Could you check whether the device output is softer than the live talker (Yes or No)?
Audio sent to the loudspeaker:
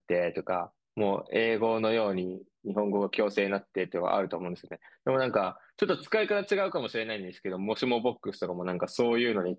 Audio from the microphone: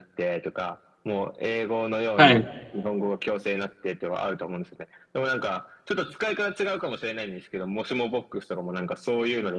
Yes